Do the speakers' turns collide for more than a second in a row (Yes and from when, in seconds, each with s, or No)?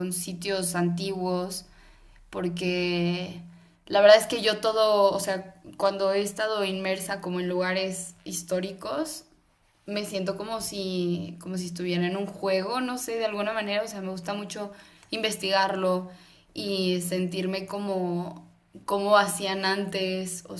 No